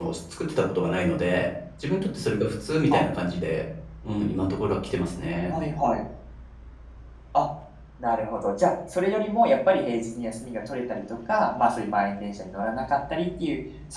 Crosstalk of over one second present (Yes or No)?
No